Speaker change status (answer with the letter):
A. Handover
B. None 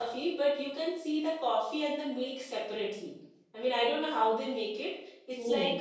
B